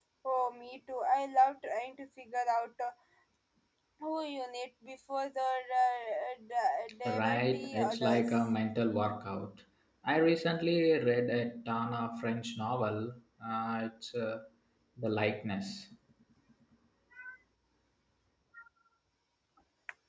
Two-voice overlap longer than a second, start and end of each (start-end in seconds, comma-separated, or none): 7.1-8.3